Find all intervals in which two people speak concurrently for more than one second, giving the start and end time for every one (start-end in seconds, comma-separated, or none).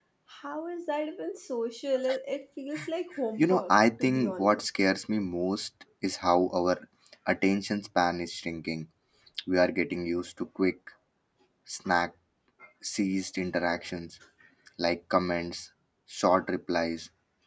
3.4-4.7